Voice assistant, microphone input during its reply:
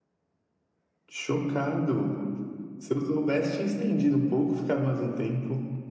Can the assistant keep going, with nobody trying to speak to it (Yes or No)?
Yes